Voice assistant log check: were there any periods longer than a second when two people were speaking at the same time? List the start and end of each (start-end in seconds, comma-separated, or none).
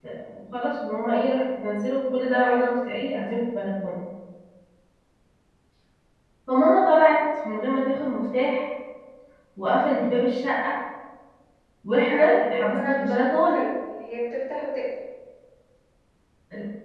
12.1-13.7